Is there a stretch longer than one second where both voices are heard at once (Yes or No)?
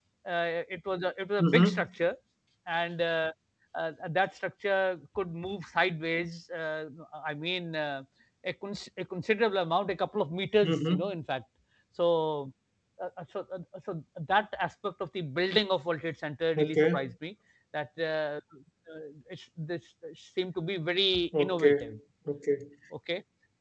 No